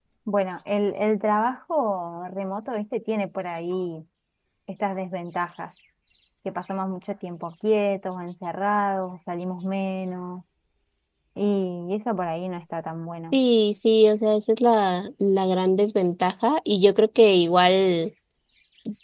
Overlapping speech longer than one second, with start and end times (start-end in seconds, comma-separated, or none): none